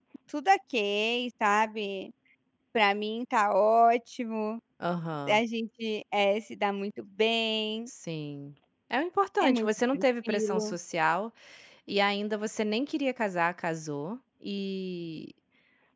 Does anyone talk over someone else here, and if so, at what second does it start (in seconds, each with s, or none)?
9.4 s